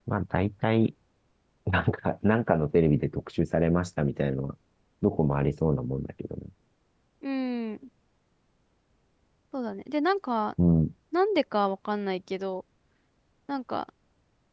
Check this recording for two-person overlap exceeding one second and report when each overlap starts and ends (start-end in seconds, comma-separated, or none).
none